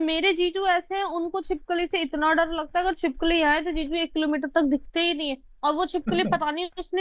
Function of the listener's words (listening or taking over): listening